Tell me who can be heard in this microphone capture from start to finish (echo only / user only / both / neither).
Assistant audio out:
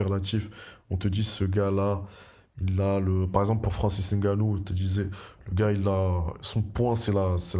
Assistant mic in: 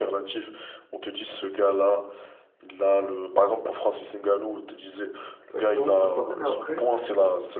both